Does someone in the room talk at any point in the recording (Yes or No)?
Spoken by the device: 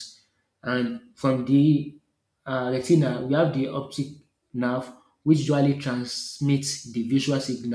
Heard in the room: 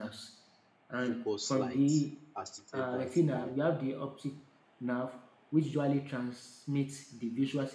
Yes